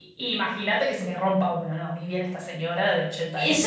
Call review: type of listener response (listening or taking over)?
taking over